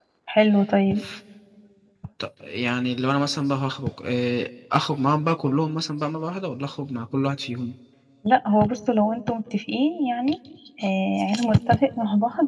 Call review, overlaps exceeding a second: none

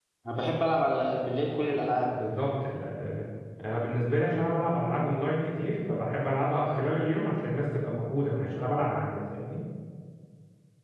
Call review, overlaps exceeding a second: none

